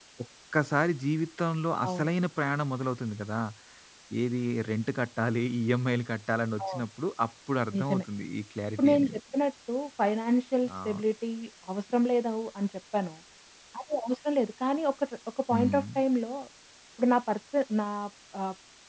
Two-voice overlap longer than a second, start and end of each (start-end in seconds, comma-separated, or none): none